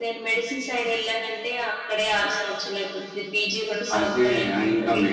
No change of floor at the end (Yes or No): No